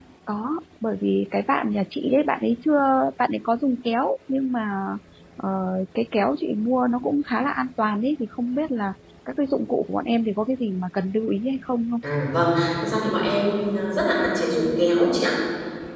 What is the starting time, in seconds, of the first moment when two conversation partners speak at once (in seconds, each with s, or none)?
none